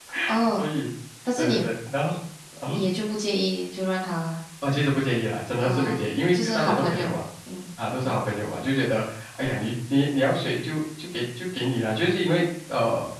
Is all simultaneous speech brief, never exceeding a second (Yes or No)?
No